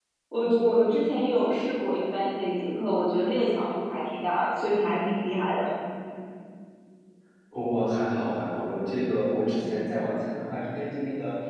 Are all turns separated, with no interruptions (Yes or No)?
Yes